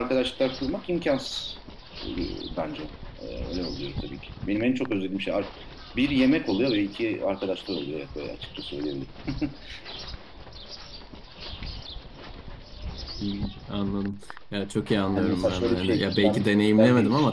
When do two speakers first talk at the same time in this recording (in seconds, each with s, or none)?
15.1 s